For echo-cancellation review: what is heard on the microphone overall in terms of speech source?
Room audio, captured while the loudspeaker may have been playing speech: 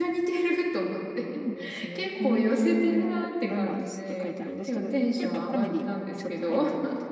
both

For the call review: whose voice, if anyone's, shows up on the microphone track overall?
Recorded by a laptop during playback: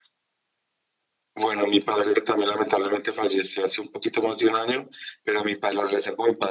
echo only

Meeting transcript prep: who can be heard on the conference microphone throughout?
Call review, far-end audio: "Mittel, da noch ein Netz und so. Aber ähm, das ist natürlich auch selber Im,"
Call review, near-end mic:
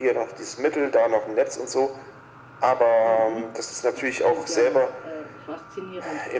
both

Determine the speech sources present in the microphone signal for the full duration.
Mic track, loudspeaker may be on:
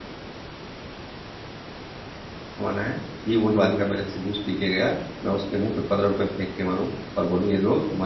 user only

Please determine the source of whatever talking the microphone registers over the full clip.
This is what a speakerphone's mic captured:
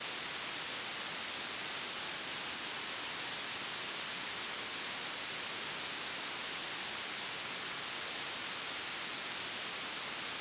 neither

